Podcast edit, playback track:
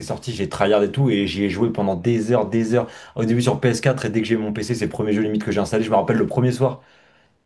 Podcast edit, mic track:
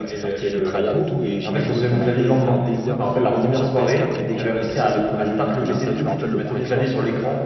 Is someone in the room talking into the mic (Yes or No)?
Yes